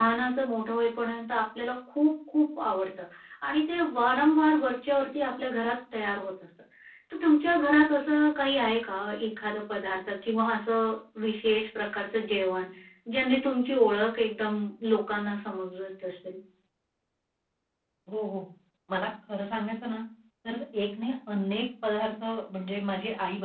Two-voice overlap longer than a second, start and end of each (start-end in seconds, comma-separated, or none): none